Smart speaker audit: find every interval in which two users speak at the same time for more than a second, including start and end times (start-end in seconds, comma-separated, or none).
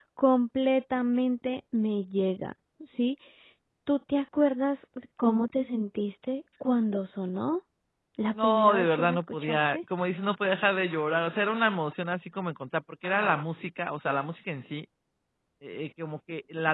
8.4-9.8